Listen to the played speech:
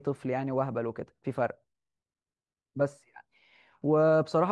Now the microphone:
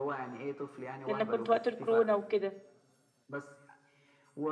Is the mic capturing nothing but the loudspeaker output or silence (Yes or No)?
No